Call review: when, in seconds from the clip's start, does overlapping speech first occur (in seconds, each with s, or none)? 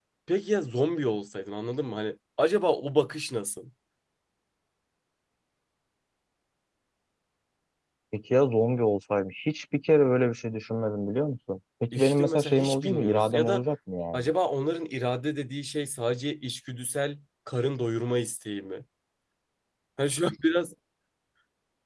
11.9 s